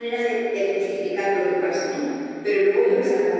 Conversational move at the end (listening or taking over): listening